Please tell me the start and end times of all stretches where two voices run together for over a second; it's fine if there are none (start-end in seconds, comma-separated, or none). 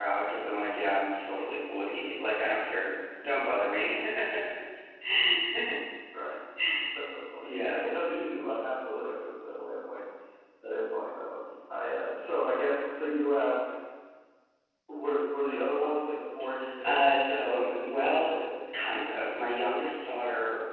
16.8-18.3